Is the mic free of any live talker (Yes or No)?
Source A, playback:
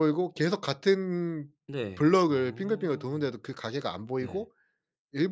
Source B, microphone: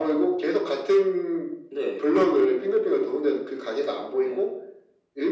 Yes